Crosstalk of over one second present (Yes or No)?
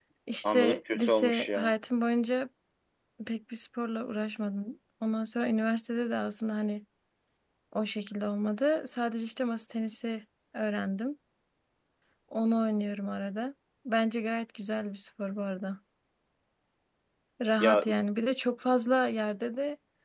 Yes